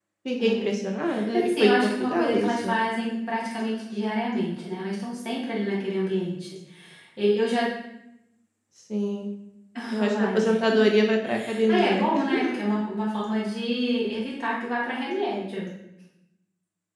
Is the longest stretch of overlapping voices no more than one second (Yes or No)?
No